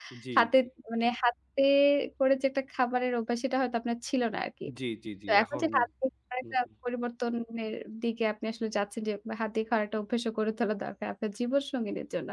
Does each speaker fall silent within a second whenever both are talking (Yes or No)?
Yes